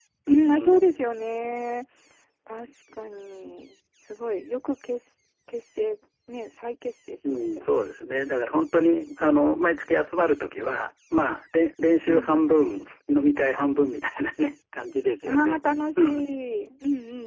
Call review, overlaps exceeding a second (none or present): none